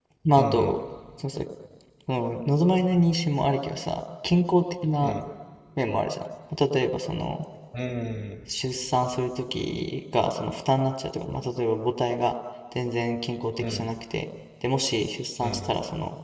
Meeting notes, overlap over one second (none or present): none